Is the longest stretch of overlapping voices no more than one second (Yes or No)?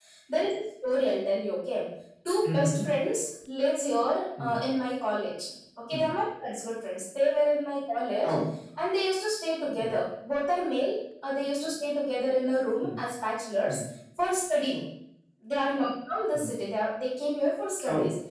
Yes